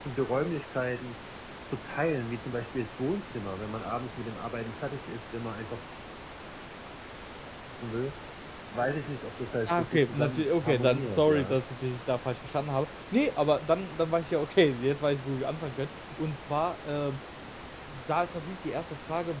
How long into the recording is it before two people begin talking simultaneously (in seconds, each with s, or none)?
9.7 s